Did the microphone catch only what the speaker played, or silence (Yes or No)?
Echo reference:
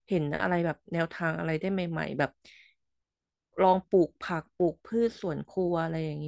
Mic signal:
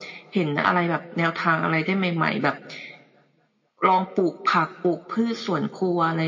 Yes